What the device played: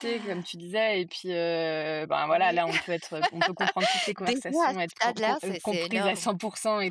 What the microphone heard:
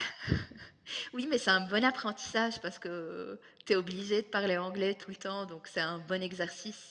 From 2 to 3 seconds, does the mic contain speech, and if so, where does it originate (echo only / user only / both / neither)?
user only